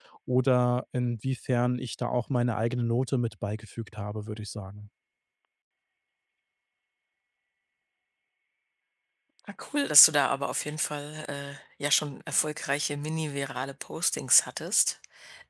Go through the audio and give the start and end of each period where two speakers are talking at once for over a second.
none

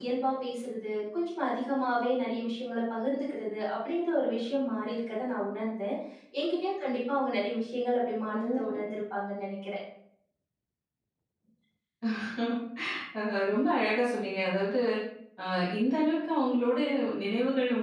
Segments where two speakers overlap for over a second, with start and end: none

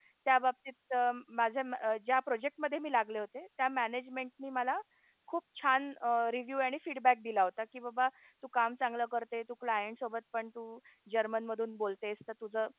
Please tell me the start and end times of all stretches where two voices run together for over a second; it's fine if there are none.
none

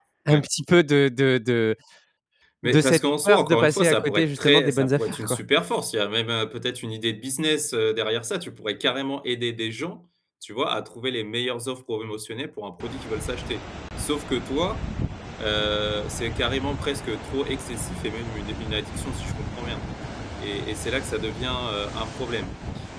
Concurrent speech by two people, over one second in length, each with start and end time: 2.6-5.4

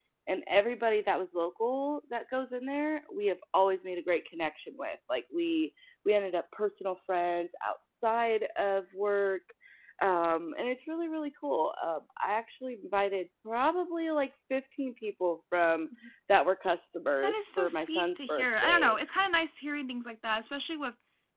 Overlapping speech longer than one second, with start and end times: 17.2-18.9

